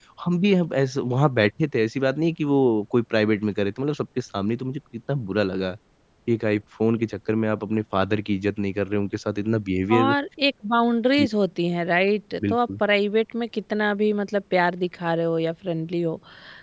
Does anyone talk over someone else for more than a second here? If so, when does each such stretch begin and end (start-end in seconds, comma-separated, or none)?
none